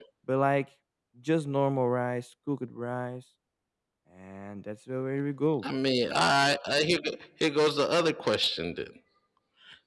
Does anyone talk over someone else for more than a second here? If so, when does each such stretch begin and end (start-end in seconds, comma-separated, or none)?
none